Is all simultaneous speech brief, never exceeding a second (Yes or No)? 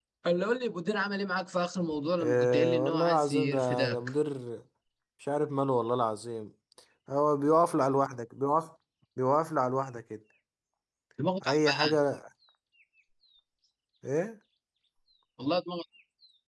No